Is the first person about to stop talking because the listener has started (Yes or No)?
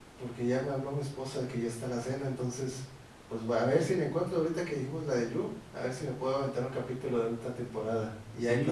Yes